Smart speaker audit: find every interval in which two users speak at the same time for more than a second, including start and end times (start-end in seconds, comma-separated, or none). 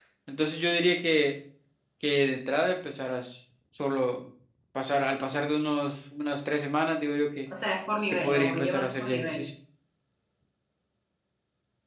8.1-9.4